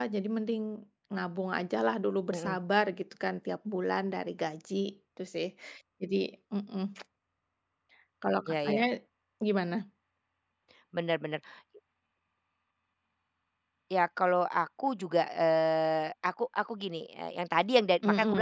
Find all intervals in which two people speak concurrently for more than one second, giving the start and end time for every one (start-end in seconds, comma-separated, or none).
none